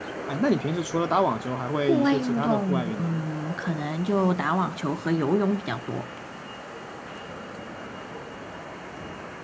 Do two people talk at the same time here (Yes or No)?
Yes